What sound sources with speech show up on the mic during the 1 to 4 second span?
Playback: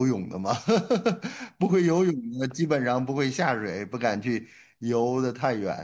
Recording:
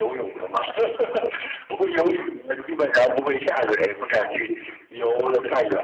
echo only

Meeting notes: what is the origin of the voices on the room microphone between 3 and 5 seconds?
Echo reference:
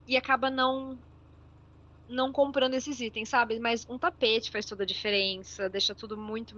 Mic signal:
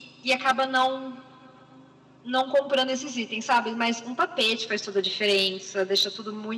echo only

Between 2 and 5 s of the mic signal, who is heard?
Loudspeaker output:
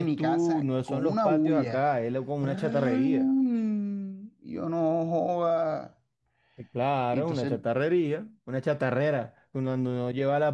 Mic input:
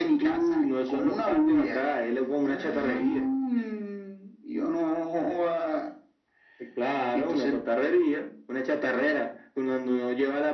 echo only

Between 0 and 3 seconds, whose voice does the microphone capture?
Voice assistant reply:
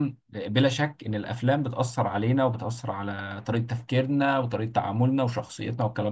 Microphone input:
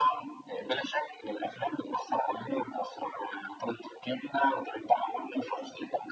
echo only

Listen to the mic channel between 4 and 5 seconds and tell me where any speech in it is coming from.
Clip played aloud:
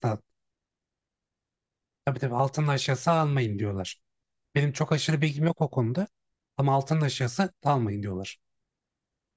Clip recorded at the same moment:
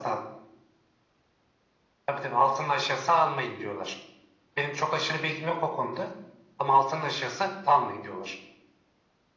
echo only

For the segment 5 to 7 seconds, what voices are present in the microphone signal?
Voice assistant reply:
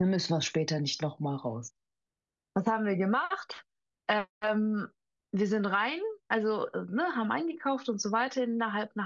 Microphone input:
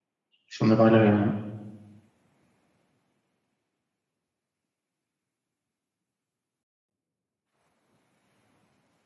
neither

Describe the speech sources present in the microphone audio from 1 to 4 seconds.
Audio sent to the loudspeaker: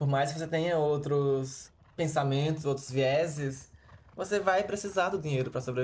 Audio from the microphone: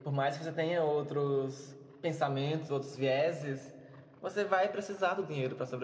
echo only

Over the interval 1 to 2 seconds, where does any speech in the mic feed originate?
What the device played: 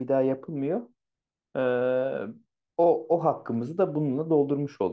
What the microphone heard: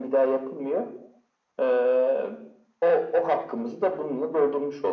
echo only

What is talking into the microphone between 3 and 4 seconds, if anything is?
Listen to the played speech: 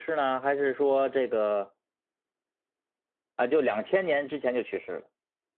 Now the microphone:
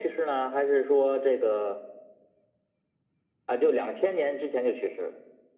echo only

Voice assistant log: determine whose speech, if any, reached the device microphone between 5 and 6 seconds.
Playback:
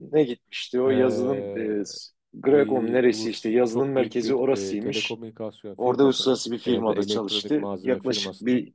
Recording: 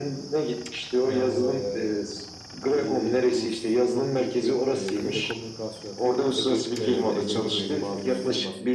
echo only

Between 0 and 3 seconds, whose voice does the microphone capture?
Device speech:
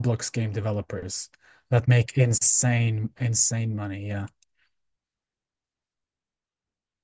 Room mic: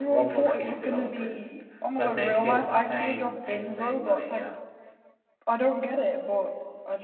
both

